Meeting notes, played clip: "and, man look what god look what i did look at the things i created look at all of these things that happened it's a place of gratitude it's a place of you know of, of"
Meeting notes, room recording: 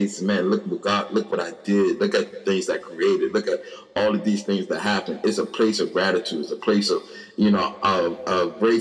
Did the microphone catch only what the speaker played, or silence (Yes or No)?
Yes